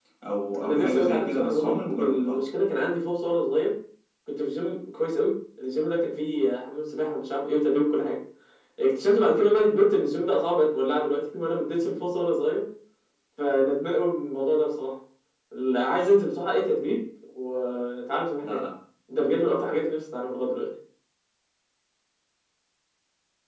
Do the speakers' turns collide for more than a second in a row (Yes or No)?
Yes